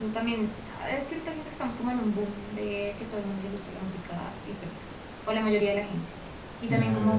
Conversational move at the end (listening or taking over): listening